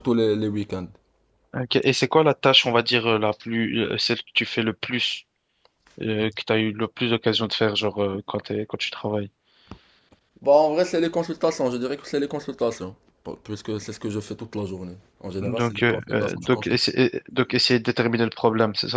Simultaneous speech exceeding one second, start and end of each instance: 15.4-16.8

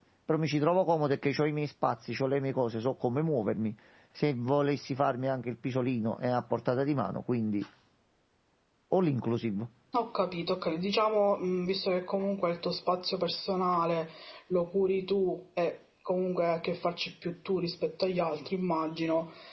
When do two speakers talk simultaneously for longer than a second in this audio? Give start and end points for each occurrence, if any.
none

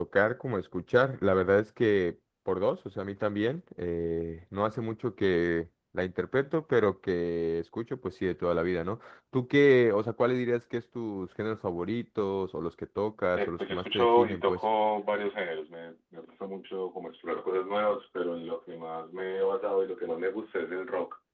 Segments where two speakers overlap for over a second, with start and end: 13.3-14.6

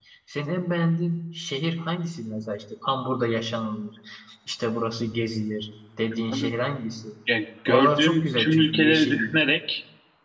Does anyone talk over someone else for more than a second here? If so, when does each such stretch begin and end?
7.7-9.3

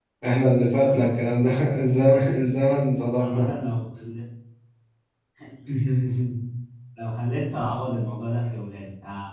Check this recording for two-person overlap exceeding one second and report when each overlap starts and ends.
none

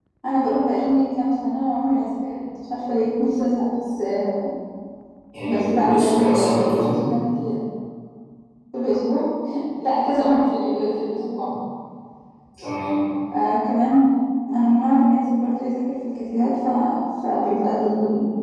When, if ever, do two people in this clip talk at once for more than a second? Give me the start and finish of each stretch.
5.4-7.0

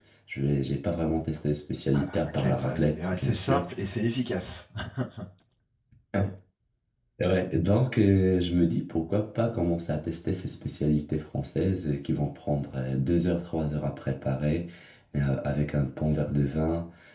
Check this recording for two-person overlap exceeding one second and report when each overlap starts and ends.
1.9-3.6

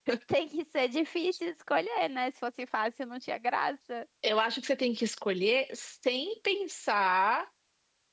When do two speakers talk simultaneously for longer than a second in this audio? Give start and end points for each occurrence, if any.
none

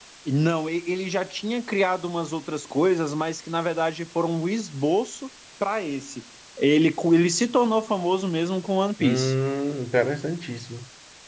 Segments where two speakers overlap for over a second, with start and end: none

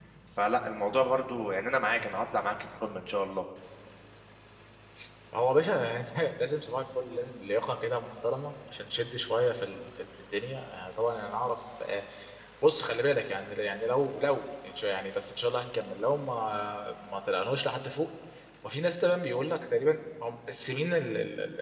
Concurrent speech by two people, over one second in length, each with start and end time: none

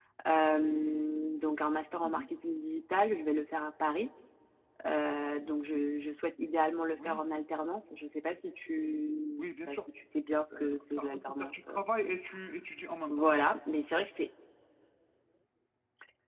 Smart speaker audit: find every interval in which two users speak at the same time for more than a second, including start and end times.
10.5-12.1

